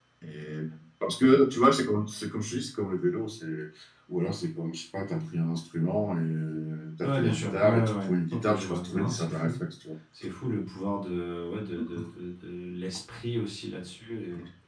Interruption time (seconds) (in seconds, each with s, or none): 7.0 s